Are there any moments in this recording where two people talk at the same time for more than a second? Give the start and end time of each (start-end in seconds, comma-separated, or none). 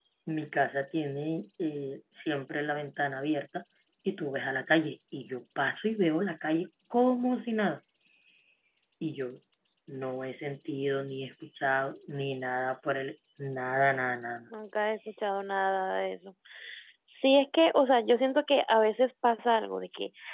none